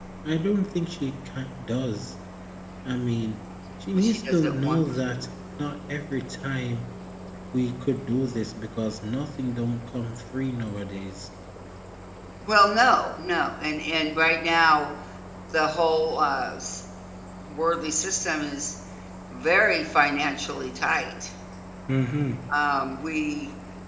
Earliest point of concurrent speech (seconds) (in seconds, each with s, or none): 4.0 s